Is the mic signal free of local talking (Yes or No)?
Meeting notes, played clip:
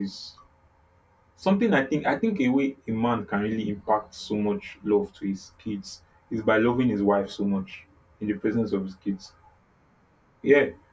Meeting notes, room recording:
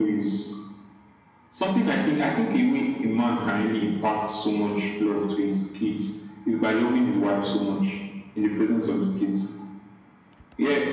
Yes